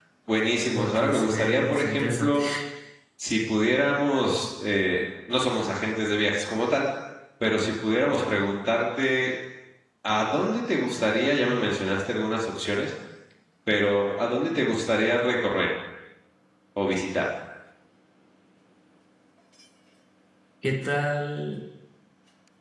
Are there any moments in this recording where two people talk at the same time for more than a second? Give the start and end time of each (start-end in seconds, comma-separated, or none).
0.7-2.4